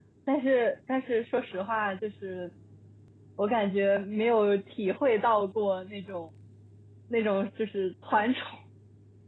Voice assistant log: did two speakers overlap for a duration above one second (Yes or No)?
No